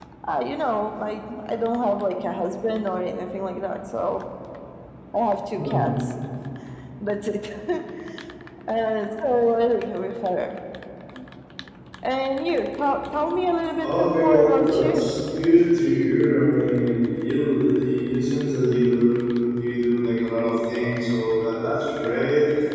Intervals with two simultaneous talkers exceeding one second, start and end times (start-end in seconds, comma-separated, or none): 13.8-15.1